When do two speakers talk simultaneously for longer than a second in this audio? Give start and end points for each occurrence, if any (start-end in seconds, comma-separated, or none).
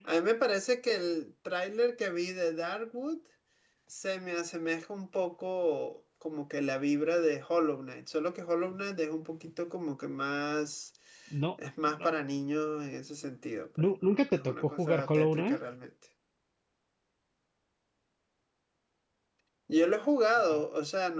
13.8-15.6